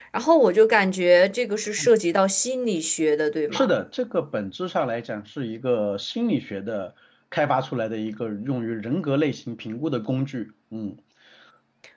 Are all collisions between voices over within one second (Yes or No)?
Yes